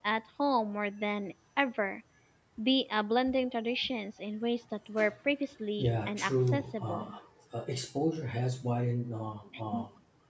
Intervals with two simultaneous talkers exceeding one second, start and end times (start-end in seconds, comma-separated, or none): 5.8-7.1